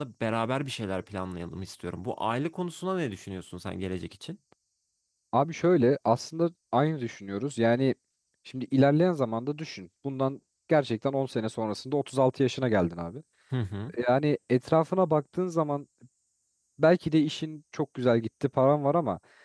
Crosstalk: none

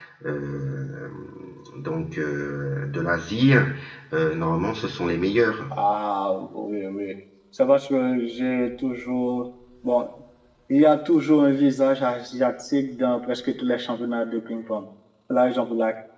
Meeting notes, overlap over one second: none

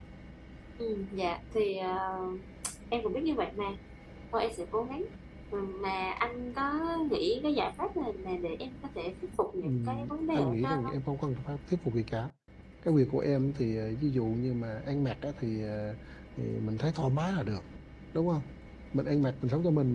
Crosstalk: present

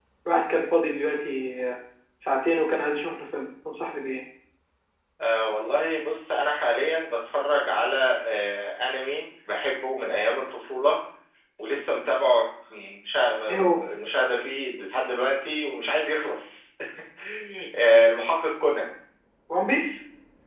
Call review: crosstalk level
none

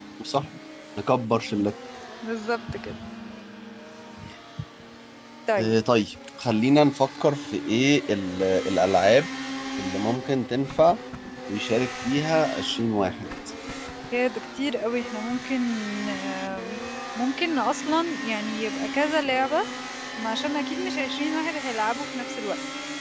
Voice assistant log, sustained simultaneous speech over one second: none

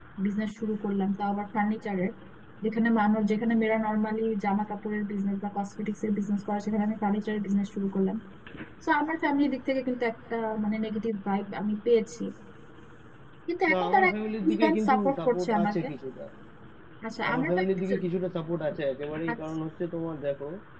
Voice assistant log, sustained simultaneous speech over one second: present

